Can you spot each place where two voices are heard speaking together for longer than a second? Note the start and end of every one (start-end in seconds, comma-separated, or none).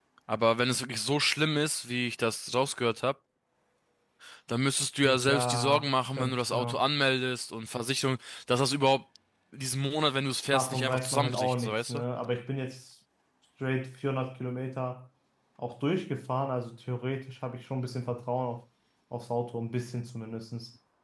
5.0-6.9, 10.5-12.0